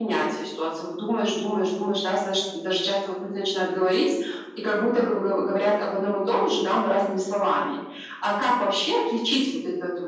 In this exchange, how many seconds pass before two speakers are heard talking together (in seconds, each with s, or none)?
none